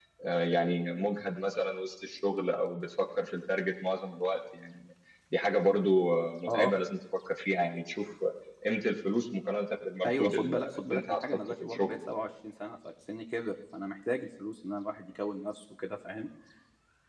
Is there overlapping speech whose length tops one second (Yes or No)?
Yes